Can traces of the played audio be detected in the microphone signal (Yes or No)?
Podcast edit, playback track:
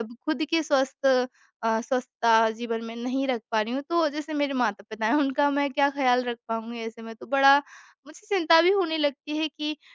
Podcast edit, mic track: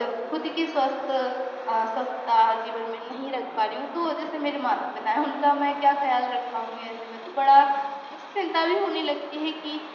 Yes